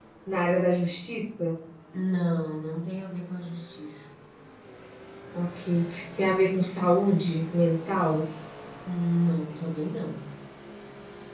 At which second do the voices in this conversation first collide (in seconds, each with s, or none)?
none